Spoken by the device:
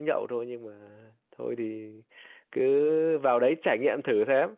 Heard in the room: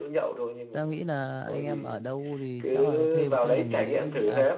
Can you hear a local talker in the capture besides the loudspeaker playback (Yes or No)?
Yes